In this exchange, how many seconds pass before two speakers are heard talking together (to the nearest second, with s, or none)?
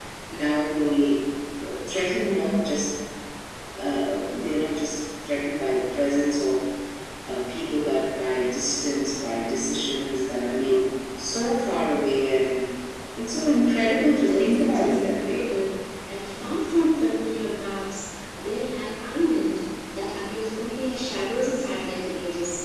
14 s